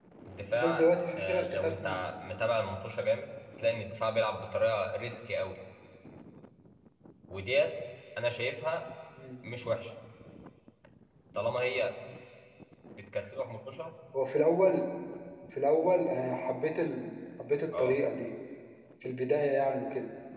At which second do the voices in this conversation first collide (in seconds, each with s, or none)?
0.6 s